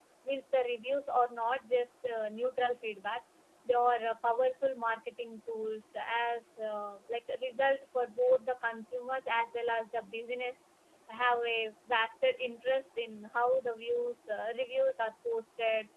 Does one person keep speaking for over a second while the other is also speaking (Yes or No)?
No